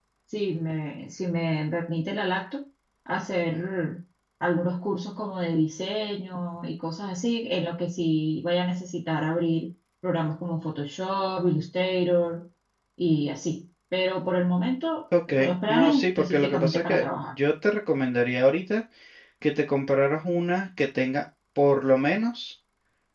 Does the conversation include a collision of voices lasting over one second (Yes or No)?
Yes